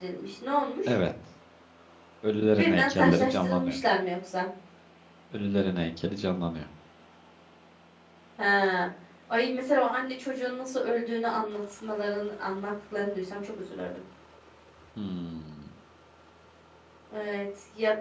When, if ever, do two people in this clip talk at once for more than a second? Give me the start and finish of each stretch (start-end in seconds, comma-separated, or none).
2.6-3.8